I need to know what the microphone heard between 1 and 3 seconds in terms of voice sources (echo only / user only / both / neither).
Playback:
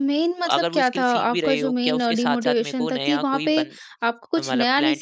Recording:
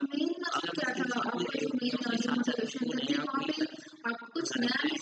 echo only